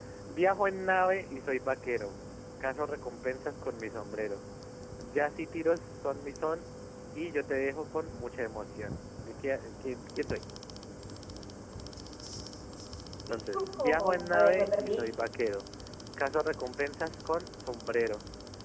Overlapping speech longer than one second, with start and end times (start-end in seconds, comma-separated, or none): 13.5-15.0